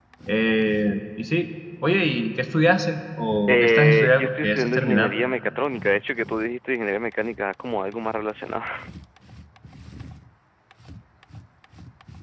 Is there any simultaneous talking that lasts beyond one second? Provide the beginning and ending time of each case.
3.5-5.2

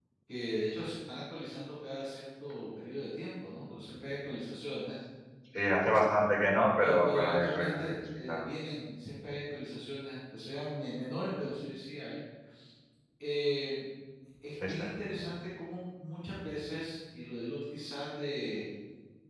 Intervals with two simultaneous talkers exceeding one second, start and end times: 6.8-8.4

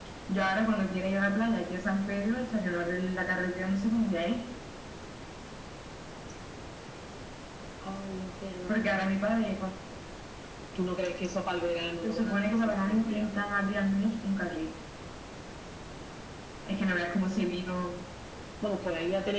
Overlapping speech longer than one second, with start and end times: 12.0-13.3

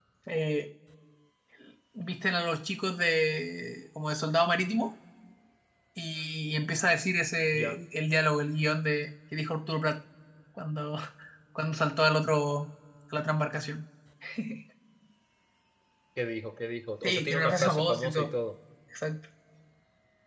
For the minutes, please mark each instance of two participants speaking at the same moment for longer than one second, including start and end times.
17.0-18.3

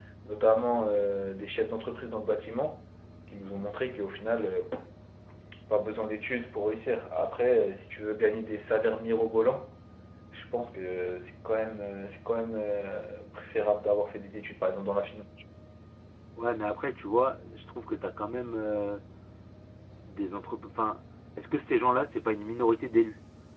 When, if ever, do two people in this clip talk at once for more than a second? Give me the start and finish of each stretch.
none

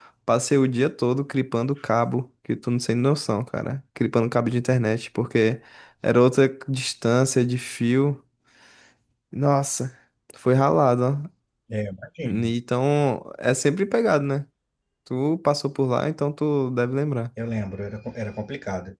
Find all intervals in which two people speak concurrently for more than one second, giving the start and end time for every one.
none

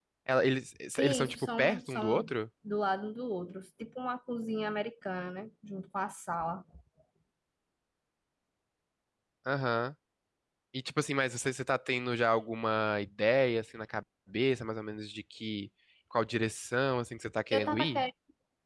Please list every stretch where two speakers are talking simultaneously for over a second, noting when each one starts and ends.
1.0-2.4

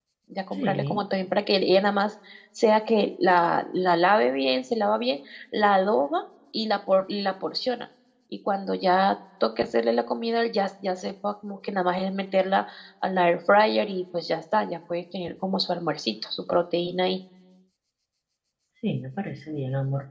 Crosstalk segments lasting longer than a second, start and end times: none

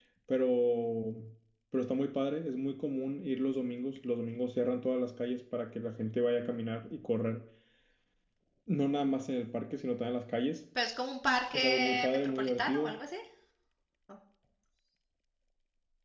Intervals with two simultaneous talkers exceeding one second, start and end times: 11.5-13.0

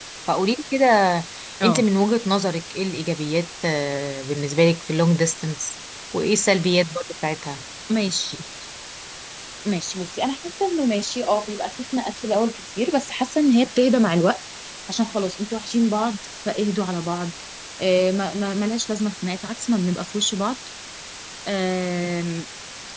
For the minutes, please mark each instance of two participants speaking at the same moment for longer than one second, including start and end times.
none

